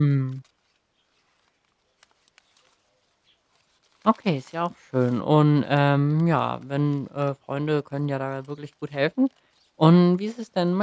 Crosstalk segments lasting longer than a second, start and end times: none

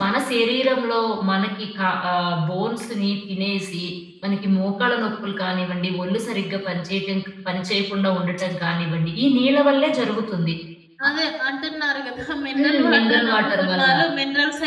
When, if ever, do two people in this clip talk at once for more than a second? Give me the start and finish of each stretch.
12.6-13.9

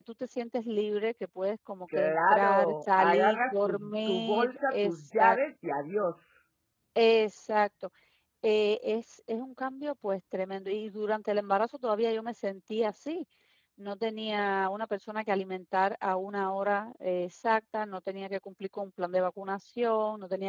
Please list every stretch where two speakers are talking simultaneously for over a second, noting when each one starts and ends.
1.9-5.4

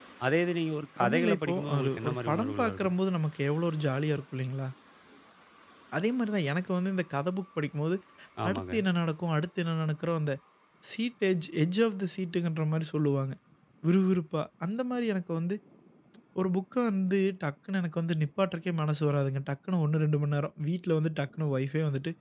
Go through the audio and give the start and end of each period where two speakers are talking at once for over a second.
1.0-2.9

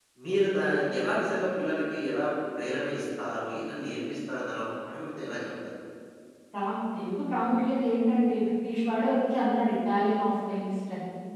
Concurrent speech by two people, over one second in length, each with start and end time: none

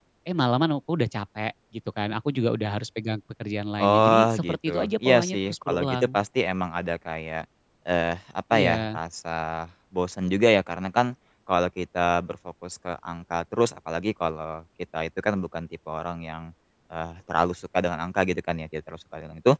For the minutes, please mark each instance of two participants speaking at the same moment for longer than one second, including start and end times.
3.8-6.2

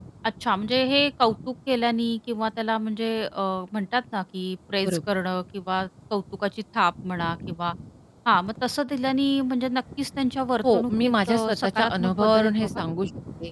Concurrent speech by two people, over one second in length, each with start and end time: 10.7-12.8

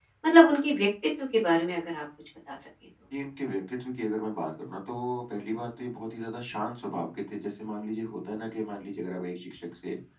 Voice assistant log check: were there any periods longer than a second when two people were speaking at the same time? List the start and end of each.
none

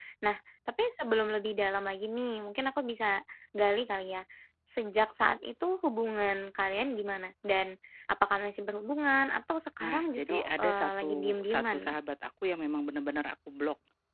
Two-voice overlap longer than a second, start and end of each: 9.8-12.0

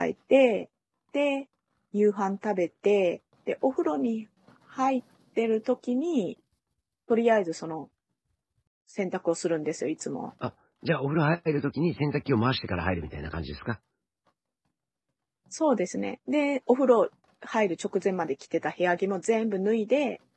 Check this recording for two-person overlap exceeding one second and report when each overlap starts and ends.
none

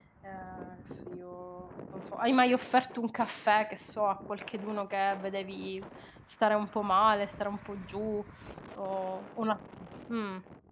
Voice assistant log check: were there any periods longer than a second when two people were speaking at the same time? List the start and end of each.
none

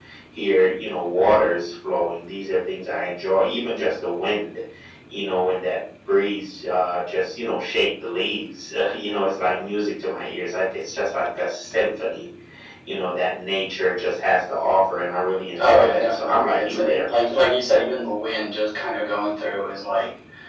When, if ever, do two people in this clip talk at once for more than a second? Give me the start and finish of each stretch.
15.6-17.0

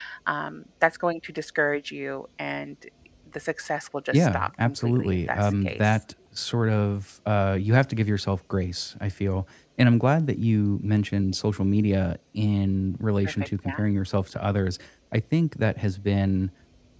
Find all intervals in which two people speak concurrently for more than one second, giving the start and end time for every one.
4.1-6.0

